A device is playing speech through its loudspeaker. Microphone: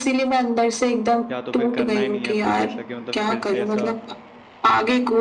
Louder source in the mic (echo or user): echo